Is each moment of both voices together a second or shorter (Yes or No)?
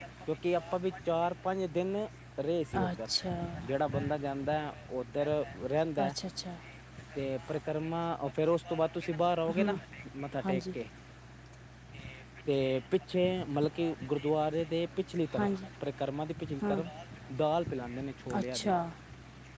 Yes